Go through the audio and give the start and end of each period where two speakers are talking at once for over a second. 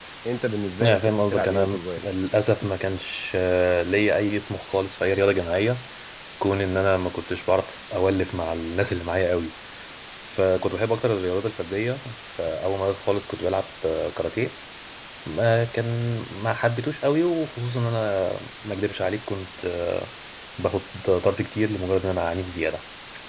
0.8-2.0

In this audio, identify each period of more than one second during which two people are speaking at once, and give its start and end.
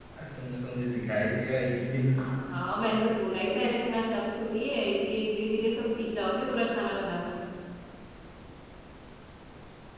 none

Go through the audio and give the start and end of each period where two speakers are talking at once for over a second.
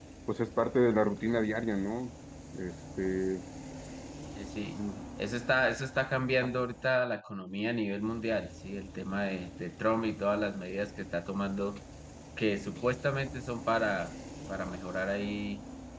none

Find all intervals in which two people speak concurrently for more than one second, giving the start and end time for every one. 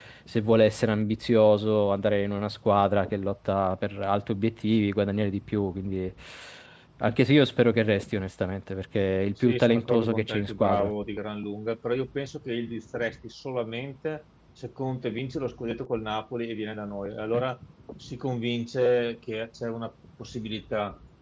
9.4-10.9

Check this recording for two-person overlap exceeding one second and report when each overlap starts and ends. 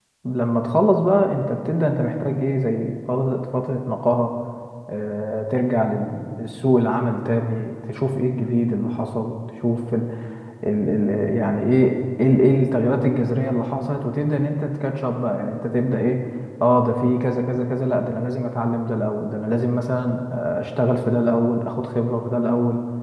none

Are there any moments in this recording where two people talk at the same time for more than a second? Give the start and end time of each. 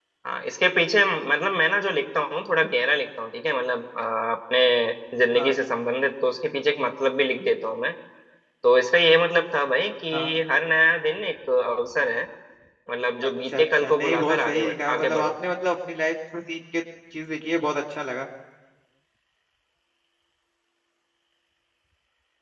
13.5-15.3

